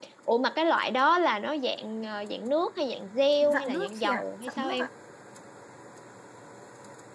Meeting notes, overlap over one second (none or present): present